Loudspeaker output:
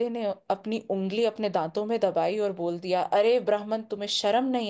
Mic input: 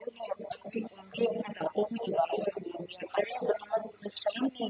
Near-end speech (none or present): none